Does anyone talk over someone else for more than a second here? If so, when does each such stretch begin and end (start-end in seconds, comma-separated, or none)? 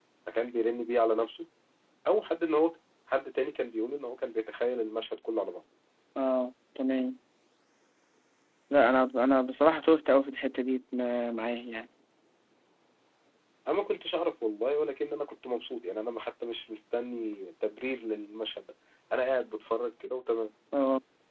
none